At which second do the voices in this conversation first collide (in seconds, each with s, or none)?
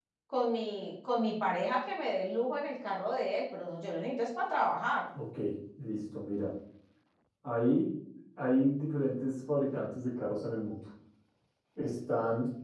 none